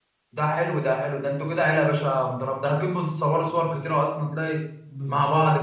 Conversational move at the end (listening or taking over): taking over